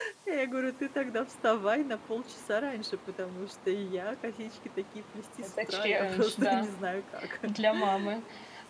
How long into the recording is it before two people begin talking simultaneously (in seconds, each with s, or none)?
5.4 s